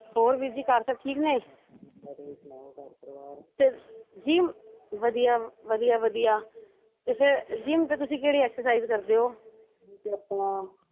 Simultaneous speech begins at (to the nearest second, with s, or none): none